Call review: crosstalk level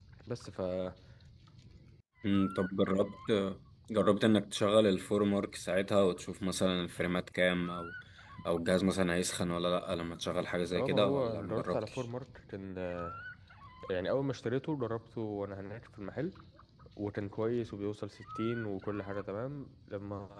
present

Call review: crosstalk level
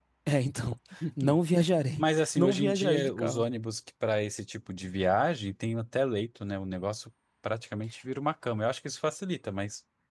present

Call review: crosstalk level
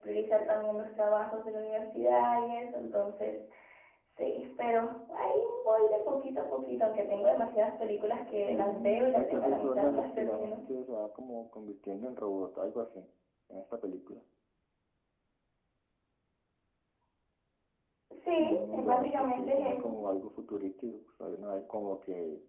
present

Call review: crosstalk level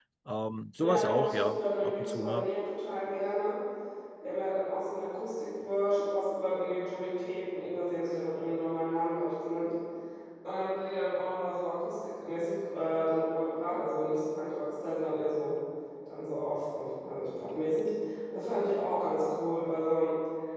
present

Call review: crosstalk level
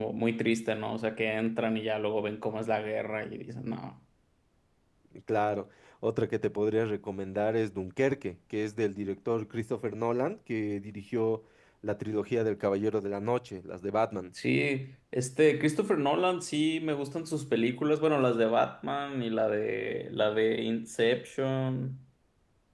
none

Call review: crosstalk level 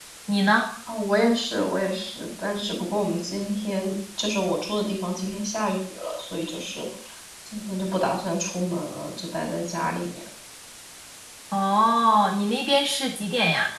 none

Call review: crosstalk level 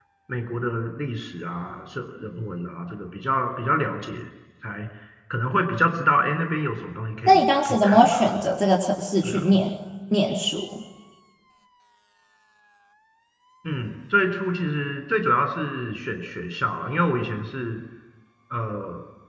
present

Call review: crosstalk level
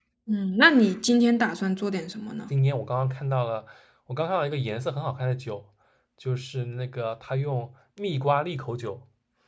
none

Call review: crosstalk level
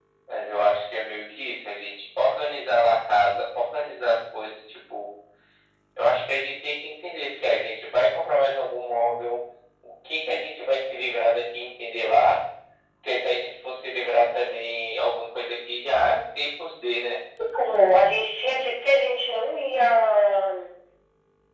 none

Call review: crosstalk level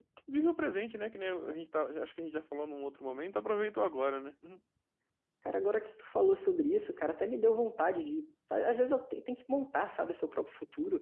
none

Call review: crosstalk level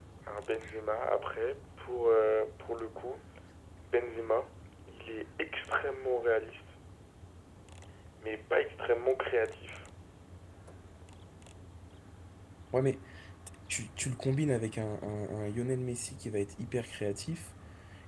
none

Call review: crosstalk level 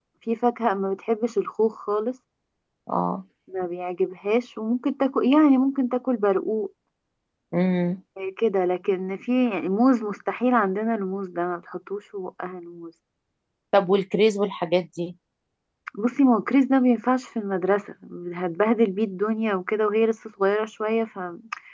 none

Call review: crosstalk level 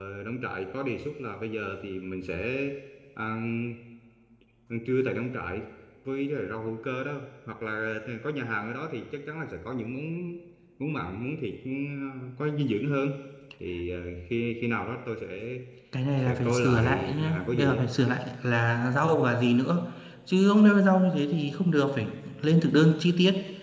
present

